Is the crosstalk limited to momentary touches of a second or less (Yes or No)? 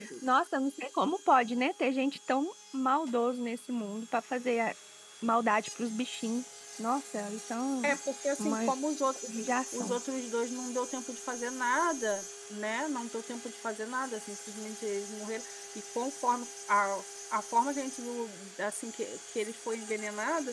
Yes